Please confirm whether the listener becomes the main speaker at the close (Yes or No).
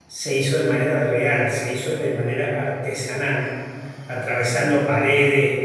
No